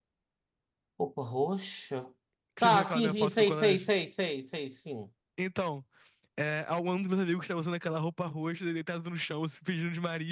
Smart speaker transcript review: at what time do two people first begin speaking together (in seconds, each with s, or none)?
2.6 s